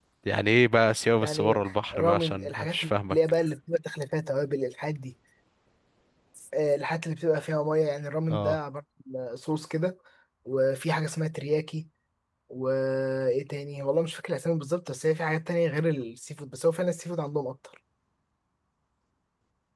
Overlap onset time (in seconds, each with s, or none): 1.2 s